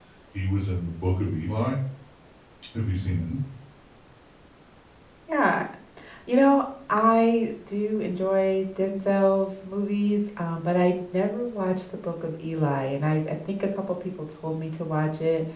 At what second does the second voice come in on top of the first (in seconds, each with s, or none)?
none